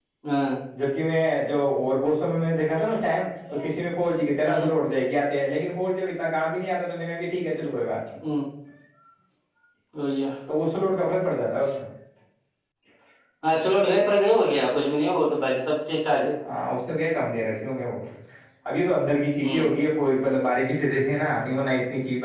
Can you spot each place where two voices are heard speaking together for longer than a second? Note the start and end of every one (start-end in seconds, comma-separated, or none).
none